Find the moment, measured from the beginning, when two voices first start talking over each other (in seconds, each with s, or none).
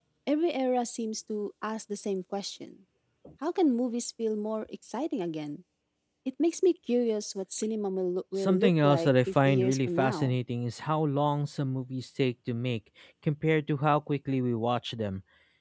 8.4 s